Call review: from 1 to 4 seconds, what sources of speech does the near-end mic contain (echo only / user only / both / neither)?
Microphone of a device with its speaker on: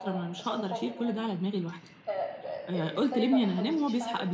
both